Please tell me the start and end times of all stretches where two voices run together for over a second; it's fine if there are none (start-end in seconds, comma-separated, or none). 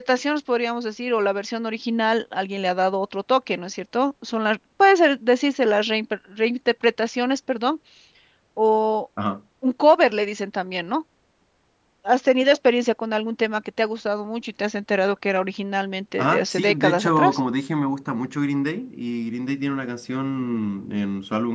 16.2-17.4